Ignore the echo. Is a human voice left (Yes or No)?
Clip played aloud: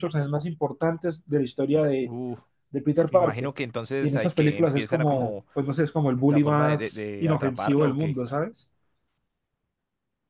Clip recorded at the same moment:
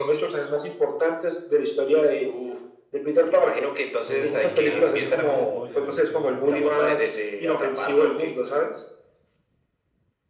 Yes